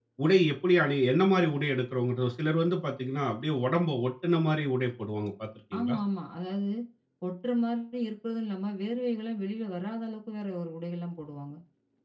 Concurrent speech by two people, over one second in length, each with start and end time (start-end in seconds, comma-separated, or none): none